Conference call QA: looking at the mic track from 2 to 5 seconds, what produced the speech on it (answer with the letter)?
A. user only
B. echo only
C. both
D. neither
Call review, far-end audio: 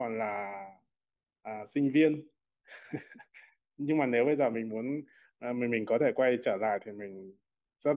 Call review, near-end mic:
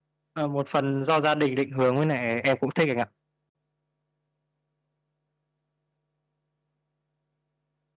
A